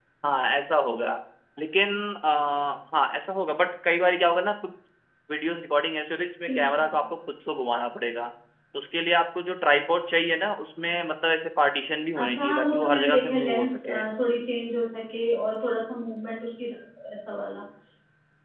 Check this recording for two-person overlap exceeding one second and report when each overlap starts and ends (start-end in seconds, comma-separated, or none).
12.2-13.8